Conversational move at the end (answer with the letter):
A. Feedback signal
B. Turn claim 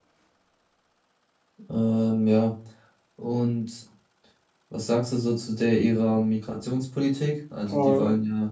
A